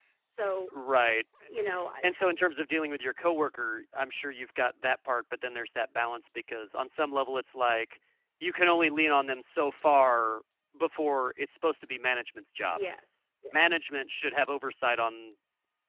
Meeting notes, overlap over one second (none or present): none